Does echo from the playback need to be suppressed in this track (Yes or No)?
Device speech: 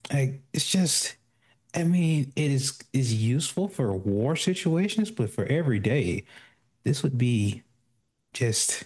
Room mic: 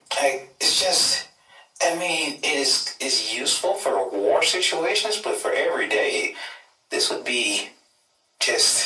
Yes